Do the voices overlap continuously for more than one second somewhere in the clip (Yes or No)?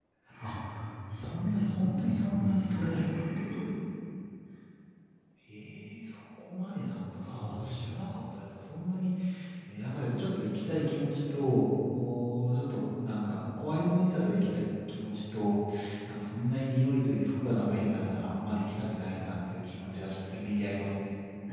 Yes